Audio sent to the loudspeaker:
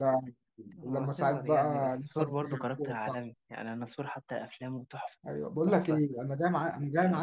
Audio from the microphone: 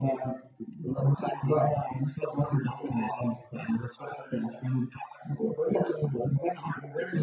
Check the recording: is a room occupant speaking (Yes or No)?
No